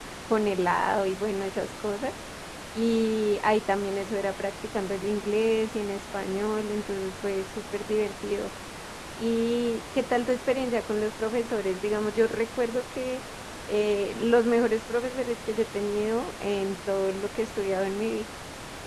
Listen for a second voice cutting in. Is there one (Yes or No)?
No